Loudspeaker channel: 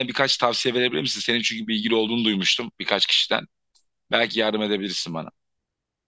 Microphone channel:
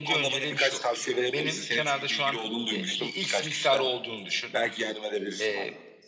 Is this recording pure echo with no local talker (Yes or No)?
No